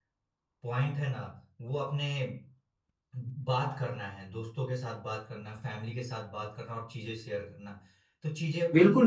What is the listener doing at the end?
taking over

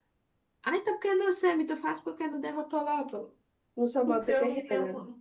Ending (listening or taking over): taking over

